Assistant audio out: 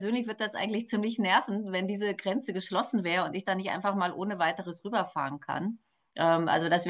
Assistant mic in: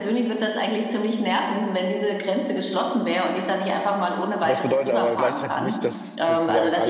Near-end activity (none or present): present